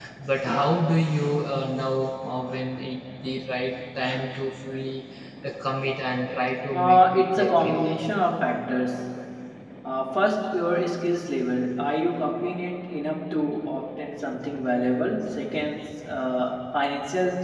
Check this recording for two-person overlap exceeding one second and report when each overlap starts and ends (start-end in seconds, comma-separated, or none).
6.7-7.9